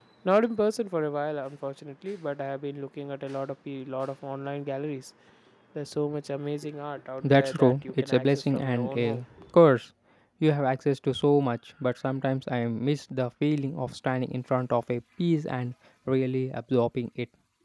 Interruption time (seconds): 7.2 s

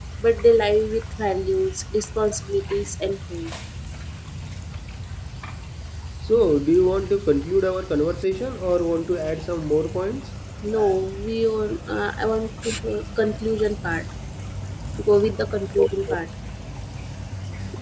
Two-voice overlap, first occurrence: none

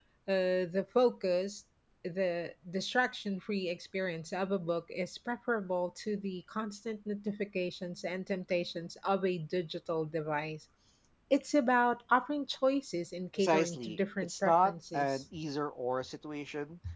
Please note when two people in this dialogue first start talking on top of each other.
13.4 s

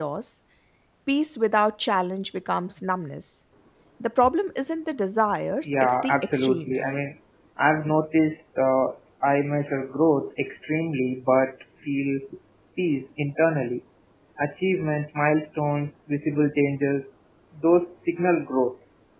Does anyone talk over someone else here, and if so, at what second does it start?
5.7 s

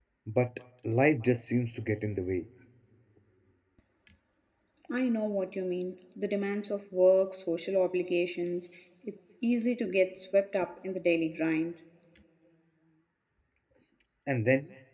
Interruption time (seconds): none

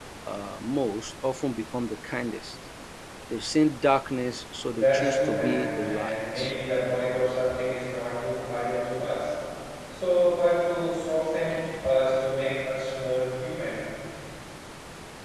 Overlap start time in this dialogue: 4.7 s

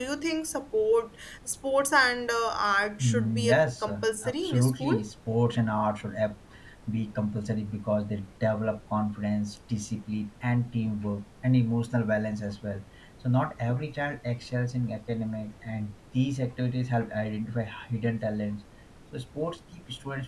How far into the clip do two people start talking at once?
3.0 s

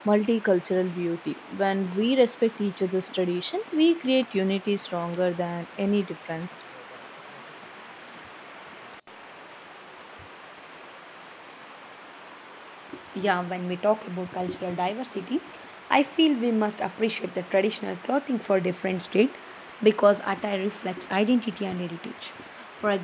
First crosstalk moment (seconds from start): none

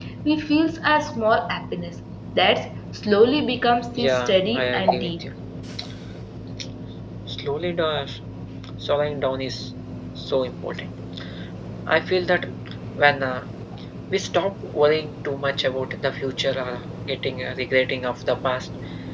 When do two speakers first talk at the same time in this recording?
4.0 s

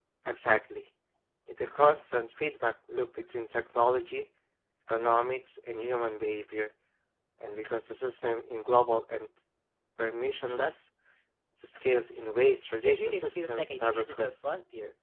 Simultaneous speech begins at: 12.8 s

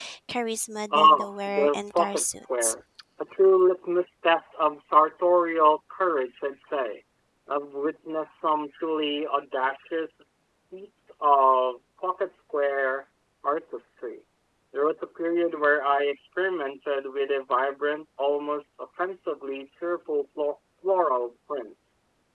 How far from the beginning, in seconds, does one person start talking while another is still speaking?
0.9 s

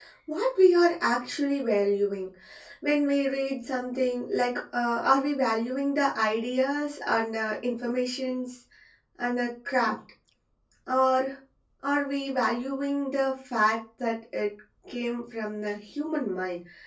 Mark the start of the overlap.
none

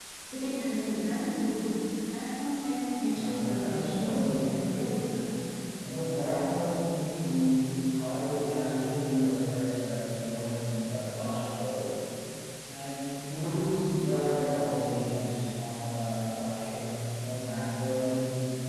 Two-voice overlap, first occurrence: 3.0 s

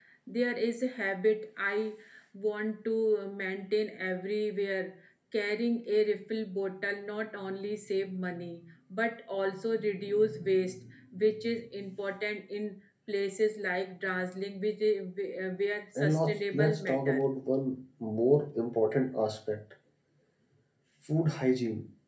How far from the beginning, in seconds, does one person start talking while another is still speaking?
16.0 s

